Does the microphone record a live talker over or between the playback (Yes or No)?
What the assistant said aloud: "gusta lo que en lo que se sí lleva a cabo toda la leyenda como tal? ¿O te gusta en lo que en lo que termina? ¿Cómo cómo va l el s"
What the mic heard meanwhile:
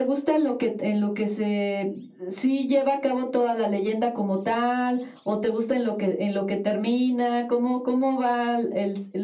No